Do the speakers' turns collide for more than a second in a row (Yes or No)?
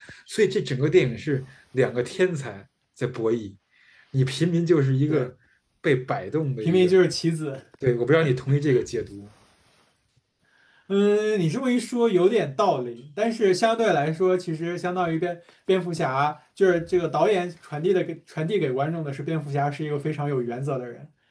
No